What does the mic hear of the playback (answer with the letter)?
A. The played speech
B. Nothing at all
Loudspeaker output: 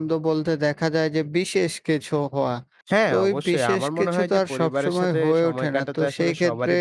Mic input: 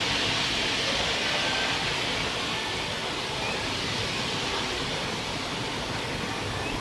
B